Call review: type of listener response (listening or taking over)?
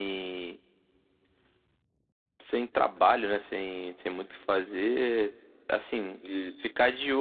listening